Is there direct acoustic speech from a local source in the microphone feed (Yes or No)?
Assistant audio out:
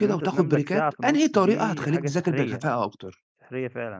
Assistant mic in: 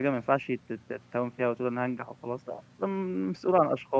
Yes